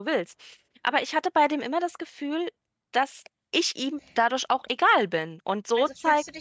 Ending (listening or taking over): taking over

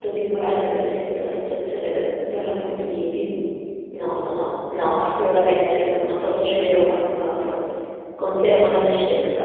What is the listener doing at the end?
taking over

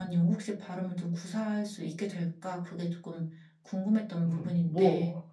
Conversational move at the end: taking over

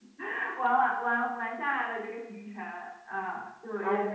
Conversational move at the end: listening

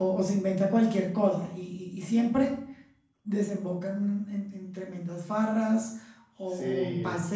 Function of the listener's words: listening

